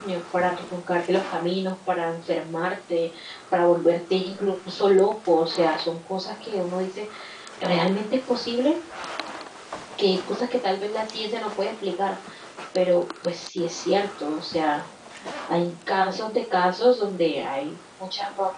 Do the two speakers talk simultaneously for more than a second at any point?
No

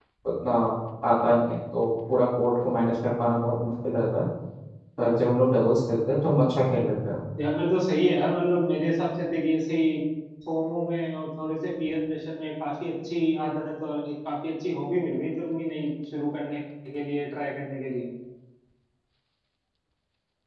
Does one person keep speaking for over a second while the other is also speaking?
No

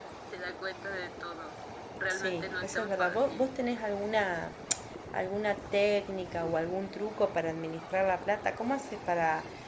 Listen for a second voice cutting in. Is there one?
Yes, from 2.1 s

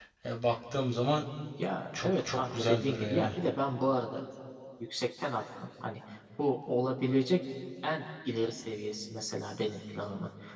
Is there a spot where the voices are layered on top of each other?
Yes, from 2.0 s

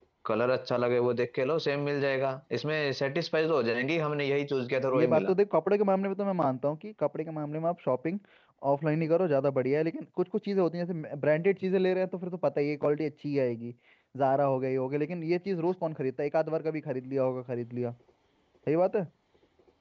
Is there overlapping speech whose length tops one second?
No

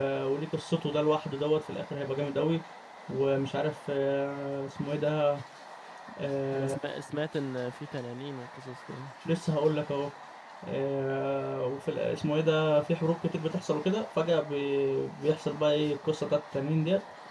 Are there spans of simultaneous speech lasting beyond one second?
No

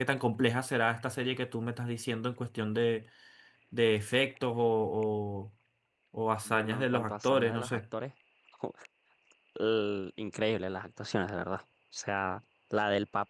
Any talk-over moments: Yes, from 6.4 s

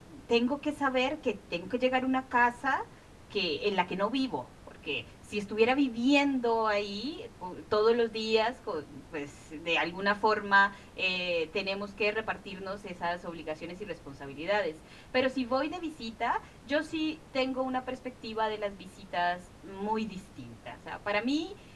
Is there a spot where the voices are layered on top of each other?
No

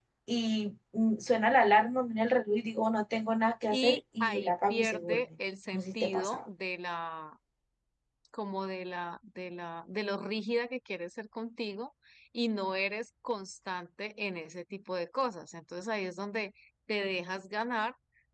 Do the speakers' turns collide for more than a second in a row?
Yes, from 3.7 s

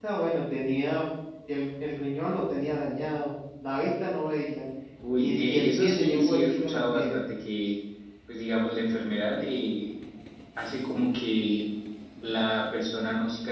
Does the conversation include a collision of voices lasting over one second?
Yes, from 5.2 s

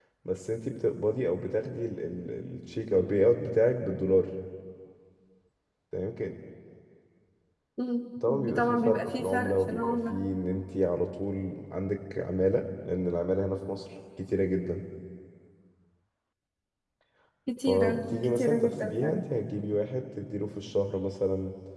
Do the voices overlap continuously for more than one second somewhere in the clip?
Yes, from 8.4 s

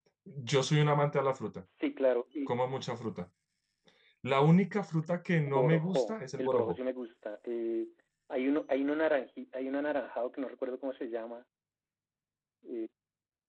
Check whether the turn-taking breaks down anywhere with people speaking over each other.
Yes, from 5.5 s

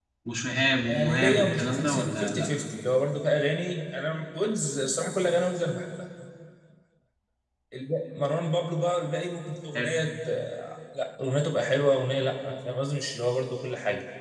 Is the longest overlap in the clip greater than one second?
Yes, from 0.9 s

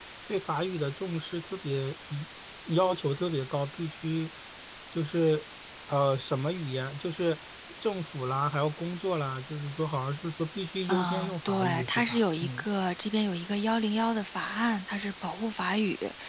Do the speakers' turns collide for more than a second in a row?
Yes, from 10.9 s

